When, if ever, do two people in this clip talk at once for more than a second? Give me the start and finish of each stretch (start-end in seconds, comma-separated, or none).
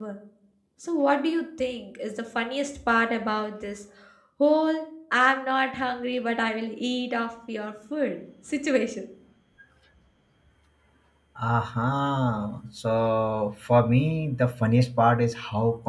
none